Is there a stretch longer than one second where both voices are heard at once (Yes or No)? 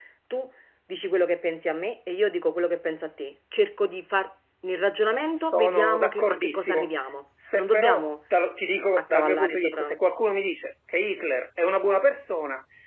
Yes